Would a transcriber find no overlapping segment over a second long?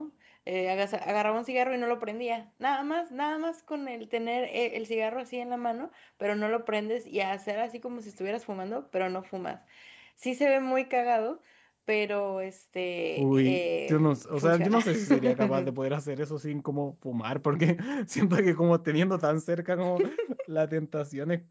No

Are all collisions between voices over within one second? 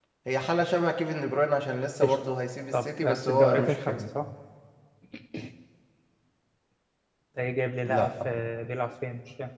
No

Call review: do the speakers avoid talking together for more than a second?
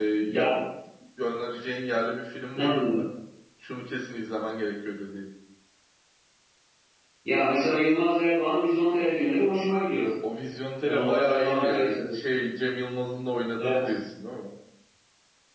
No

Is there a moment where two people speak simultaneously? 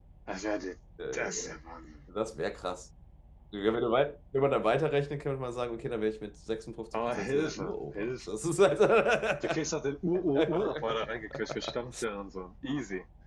Yes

